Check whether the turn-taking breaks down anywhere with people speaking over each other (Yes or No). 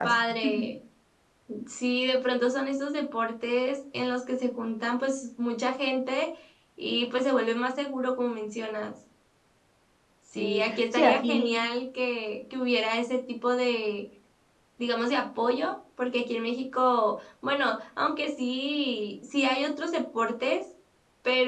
Yes